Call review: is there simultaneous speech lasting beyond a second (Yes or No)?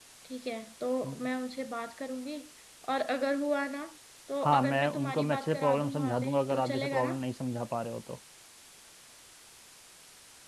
Yes